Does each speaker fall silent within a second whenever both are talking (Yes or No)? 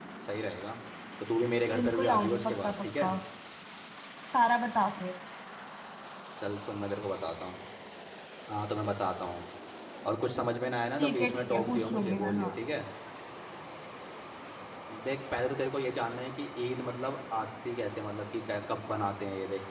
No